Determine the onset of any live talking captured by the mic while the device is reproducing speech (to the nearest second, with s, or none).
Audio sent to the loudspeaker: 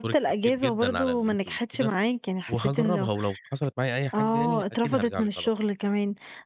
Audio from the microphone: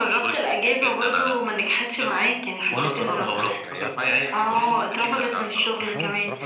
3 s